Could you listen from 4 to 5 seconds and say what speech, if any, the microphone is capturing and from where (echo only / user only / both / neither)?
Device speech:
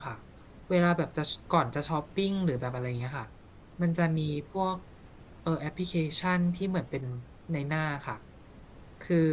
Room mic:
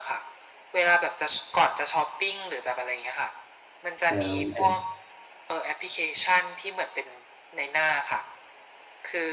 both